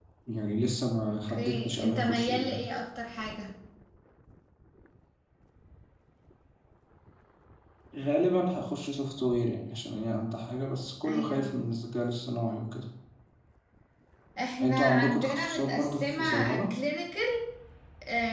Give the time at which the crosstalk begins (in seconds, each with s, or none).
1.1 s